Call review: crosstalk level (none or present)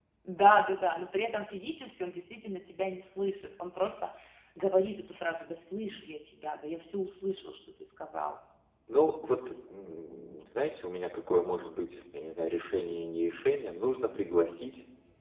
none